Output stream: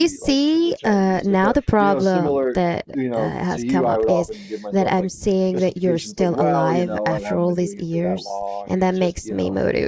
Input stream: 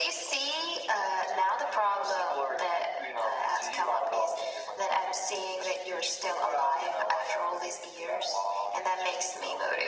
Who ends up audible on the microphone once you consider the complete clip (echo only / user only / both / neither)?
echo only